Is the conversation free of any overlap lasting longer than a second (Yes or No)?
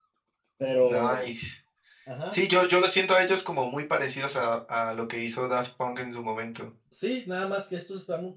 Yes